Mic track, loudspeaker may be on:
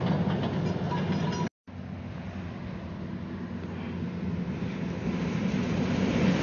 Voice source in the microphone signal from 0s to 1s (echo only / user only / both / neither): neither